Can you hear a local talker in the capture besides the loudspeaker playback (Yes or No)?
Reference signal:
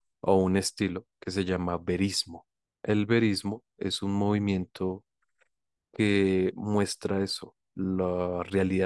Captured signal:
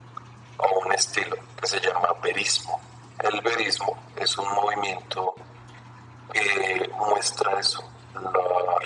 No